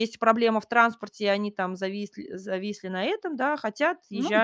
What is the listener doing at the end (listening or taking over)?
listening